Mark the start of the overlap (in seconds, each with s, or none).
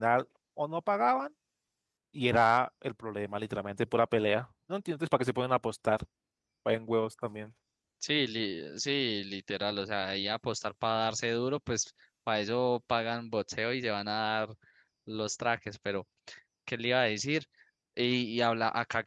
none